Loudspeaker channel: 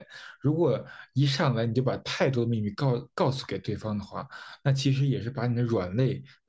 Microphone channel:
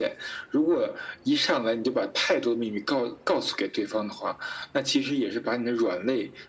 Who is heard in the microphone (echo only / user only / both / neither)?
echo only